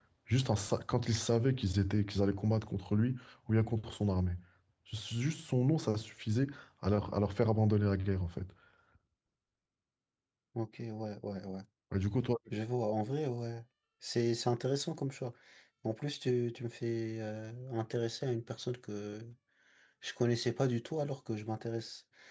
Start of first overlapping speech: none

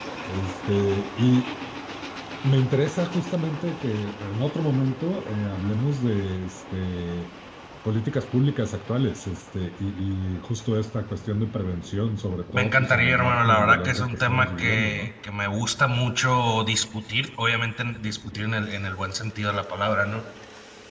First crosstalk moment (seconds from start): 12.5 s

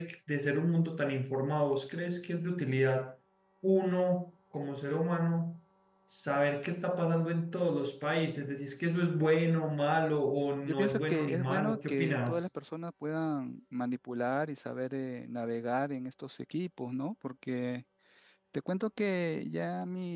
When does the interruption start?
10.6 s

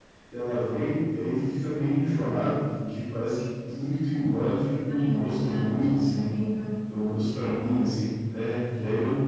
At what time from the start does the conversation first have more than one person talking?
4.9 s

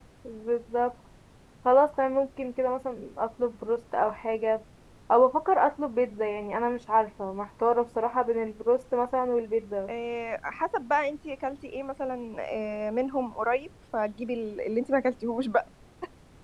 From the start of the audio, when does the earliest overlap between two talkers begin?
none

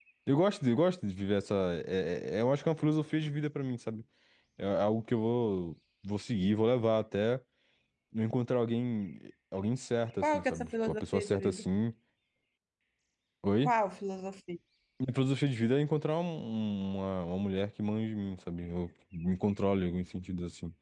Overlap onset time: 10.2 s

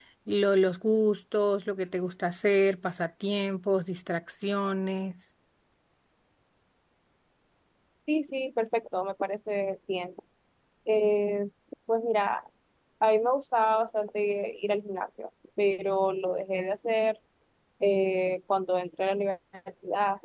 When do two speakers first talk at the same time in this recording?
none

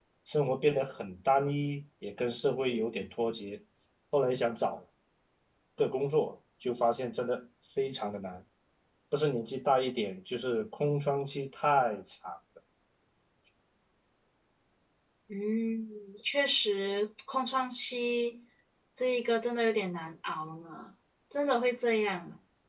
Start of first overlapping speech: none

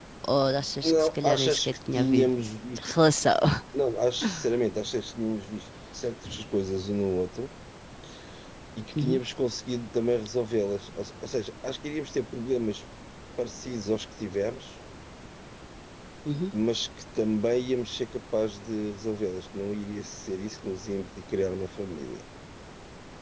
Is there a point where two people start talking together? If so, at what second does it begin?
0.8 s

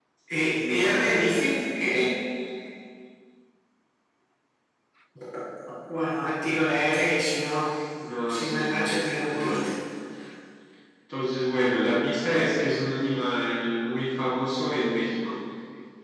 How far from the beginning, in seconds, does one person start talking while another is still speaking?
0.6 s

